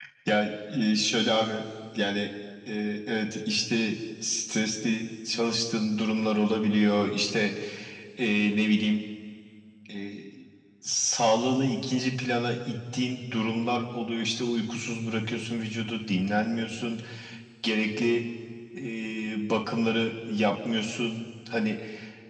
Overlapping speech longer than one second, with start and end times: none

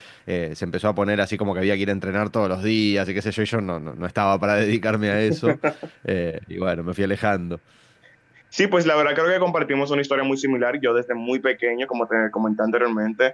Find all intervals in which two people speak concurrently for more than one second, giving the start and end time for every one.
none

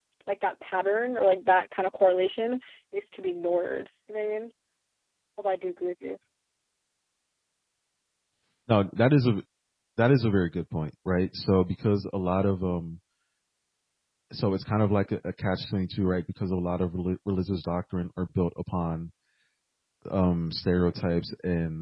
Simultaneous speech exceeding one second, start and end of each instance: none

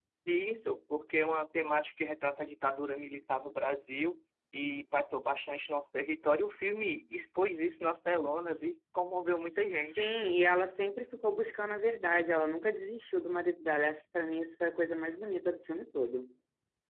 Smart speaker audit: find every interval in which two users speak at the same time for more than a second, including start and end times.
none

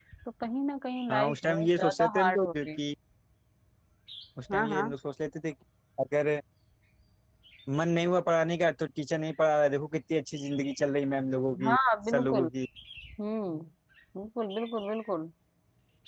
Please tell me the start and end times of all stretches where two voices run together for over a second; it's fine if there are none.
1.1-2.7

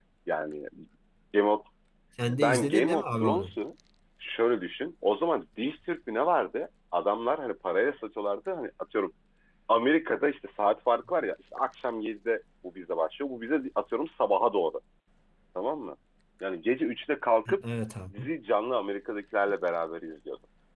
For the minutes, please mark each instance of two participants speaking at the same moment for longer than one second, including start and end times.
2.3-3.5

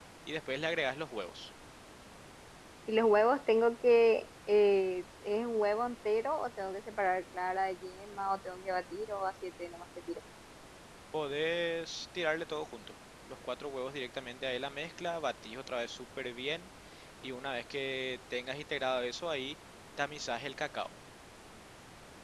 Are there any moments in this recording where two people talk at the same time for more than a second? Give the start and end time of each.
none

